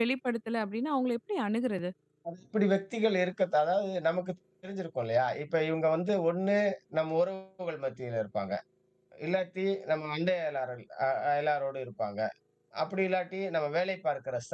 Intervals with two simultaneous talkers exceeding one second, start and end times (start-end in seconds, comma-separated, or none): none